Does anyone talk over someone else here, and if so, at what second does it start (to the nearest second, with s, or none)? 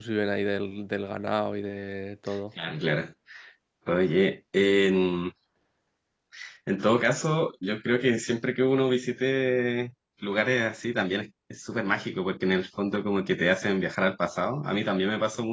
none